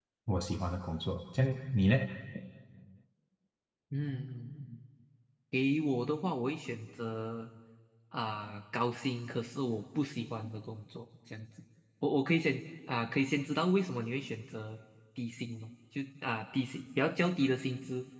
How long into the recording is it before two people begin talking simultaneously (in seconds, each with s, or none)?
none